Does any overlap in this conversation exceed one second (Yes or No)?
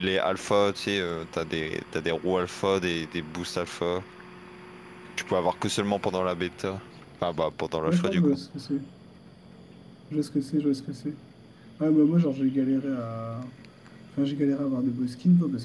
No